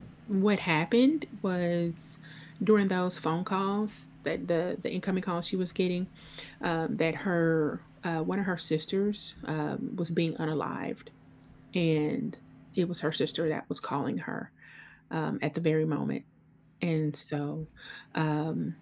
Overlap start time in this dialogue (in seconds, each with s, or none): none